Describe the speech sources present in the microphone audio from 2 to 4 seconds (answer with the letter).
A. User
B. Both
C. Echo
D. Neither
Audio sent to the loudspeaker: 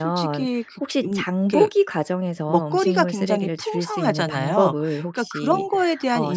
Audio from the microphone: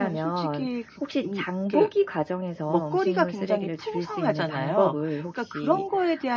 C